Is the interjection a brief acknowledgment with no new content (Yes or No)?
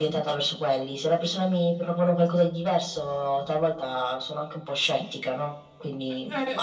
No